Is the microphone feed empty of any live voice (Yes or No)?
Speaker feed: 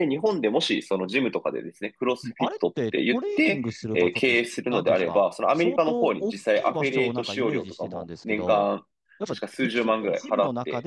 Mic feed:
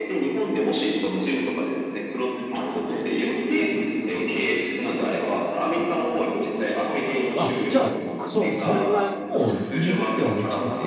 No